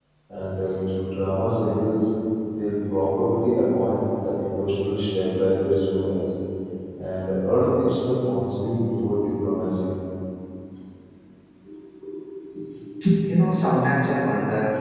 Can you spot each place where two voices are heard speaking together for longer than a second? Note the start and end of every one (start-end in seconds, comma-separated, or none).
none